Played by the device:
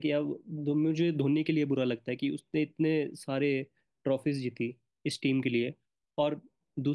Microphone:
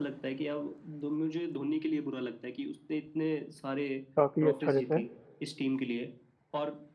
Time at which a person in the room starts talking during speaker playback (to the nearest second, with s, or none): 4 s